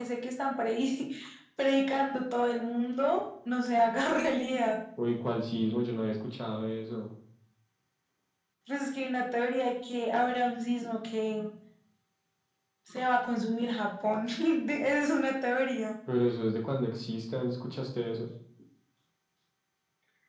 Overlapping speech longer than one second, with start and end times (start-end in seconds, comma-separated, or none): none